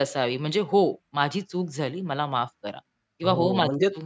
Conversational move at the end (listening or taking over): taking over